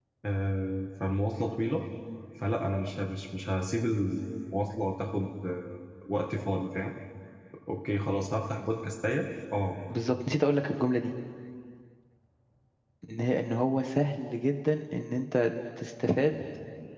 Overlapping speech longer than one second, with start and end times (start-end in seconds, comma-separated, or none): none